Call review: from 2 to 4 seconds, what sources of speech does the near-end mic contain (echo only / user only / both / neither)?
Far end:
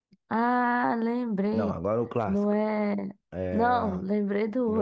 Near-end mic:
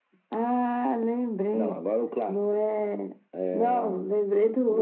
echo only